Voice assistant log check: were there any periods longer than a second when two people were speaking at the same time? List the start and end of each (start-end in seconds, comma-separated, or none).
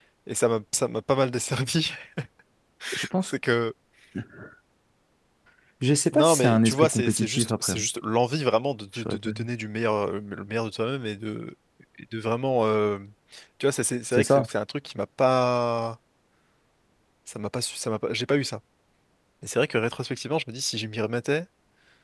6.1-7.9